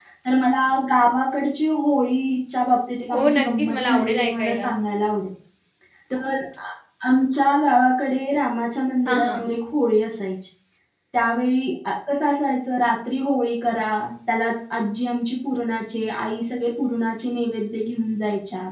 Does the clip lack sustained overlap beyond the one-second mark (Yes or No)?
No